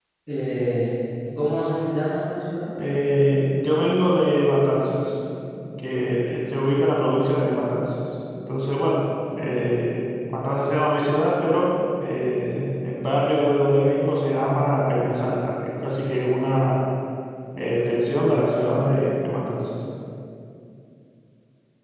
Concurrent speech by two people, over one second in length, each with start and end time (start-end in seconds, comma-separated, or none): none